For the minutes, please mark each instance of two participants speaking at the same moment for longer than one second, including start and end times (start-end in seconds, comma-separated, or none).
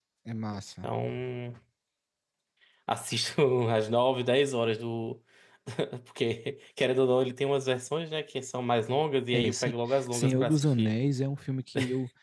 9.3-10.9